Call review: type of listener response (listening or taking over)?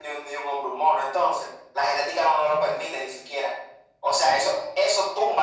listening